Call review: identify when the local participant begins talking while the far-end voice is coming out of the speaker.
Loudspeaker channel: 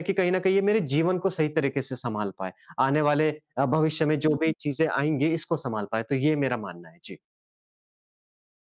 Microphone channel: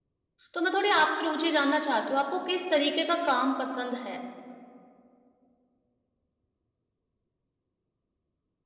0.5 s

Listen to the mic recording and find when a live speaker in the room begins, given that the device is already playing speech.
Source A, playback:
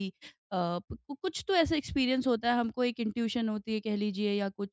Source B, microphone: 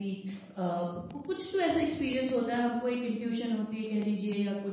none

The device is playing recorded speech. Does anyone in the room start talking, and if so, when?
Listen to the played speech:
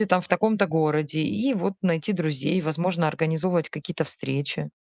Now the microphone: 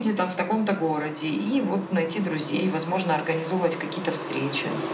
none

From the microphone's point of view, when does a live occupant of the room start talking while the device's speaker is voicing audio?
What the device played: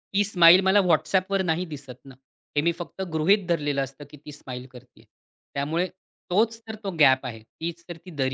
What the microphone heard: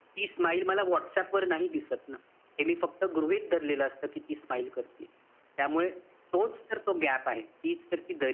none

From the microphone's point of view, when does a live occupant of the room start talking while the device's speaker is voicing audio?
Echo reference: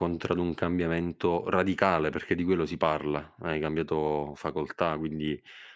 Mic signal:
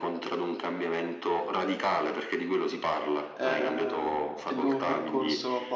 3.3 s

